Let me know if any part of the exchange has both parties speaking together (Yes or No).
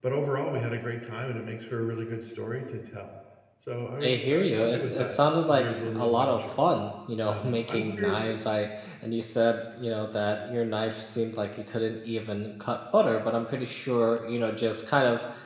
Yes